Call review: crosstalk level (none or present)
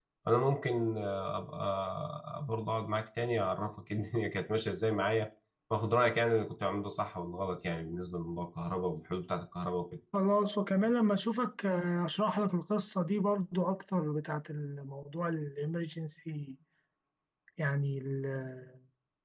none